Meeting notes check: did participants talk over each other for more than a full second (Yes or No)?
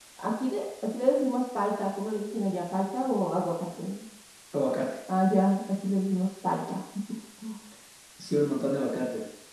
No